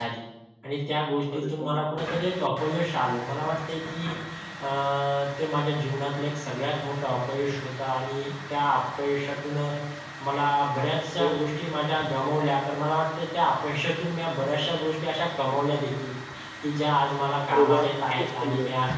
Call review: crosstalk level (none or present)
present